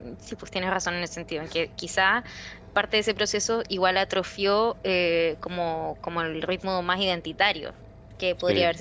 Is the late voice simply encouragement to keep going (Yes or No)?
Yes